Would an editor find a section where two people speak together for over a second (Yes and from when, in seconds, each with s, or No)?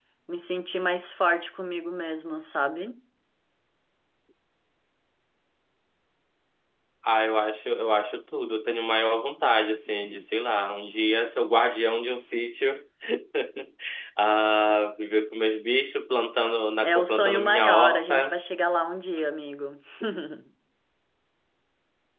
Yes, from 16.8 s